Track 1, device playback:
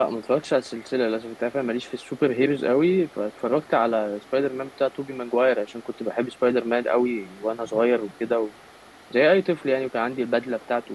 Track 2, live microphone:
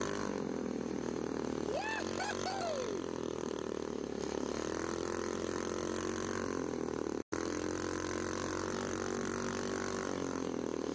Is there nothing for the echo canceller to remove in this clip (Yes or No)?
Yes